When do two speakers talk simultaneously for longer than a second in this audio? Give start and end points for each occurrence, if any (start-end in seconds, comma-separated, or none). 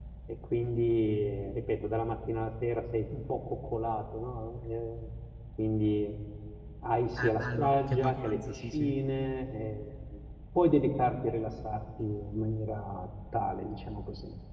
7.2-8.9